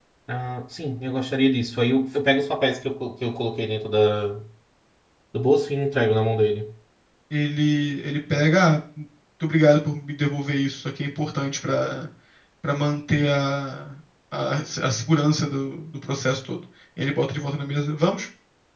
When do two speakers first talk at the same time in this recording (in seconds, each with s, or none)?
none